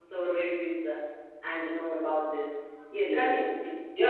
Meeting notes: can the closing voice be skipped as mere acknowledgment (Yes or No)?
No